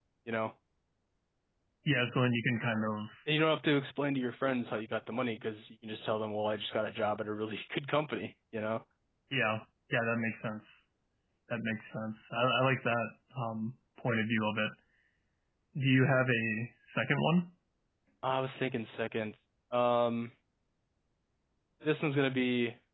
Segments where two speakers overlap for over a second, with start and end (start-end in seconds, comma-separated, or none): none